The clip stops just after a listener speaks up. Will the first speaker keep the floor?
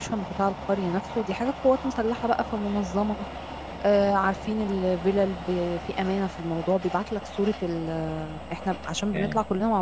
Yes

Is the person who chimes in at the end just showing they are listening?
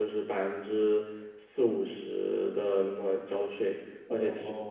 Yes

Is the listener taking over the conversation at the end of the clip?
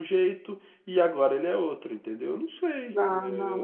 Yes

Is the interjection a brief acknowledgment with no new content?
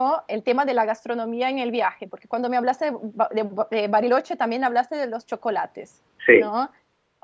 Yes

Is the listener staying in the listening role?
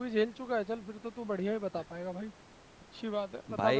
No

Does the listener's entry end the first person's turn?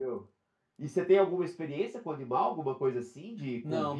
Yes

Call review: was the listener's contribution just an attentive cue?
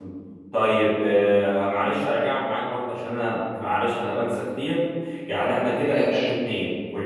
Yes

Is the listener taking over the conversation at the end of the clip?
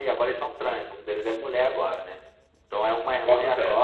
No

